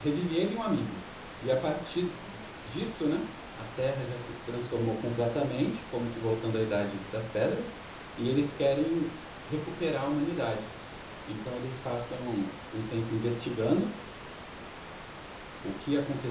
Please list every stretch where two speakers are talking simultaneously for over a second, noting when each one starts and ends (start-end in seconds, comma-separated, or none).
none